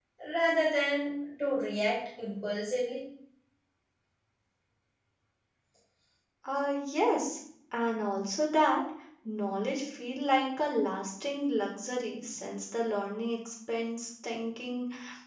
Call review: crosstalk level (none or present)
none